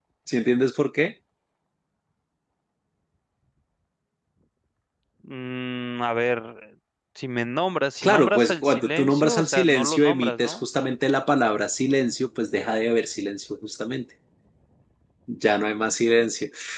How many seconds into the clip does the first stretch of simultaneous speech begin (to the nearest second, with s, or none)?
8 s